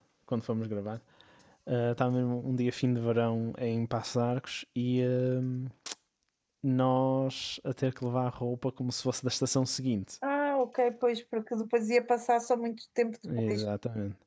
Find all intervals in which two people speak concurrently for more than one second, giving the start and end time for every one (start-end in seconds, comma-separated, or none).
none